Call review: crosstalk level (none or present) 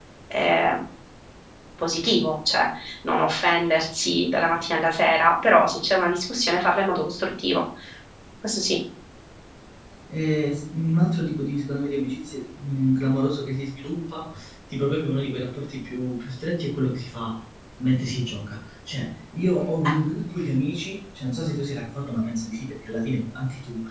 none